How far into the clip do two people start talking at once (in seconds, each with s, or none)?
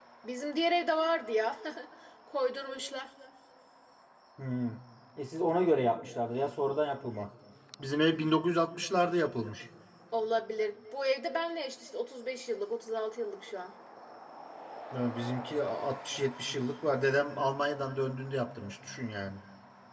none